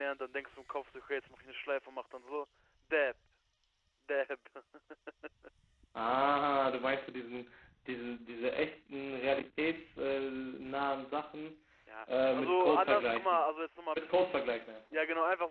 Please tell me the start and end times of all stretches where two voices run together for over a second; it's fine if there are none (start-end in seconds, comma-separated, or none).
12.1-13.4